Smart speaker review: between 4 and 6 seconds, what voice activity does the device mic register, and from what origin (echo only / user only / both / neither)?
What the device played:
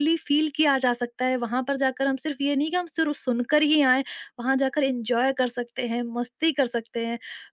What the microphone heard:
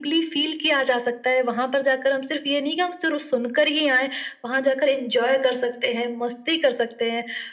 echo only